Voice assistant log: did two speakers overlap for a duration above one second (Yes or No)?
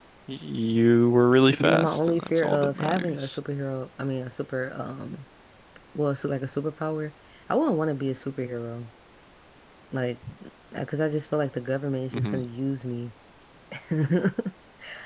Yes